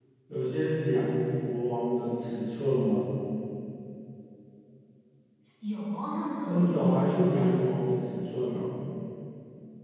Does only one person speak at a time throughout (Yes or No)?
No